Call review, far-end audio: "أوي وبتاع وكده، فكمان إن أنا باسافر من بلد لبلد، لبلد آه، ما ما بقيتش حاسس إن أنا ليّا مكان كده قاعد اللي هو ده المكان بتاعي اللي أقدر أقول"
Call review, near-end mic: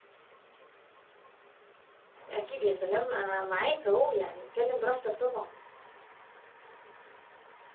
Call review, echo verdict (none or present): none